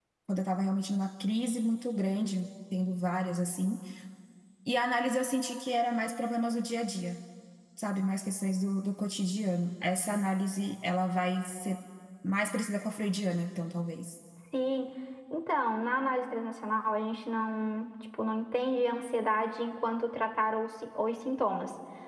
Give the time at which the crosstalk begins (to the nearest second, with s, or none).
none